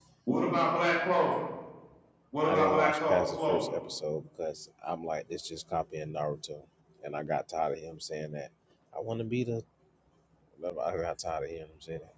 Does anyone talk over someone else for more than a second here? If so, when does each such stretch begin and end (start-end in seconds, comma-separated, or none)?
2.5-3.7